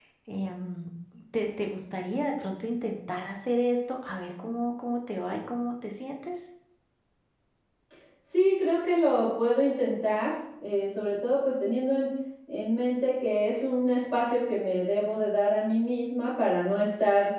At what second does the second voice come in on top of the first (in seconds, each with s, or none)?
none